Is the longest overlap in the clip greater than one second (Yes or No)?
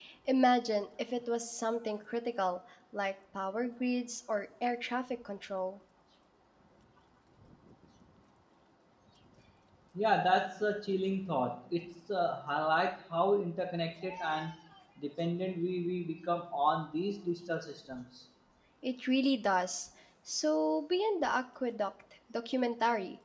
No